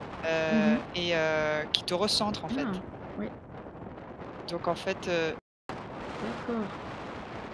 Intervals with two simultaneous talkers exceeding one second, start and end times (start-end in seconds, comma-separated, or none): none